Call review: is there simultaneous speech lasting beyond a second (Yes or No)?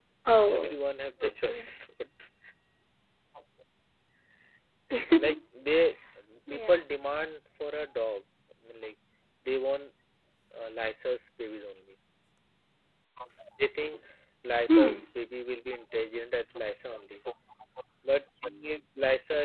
No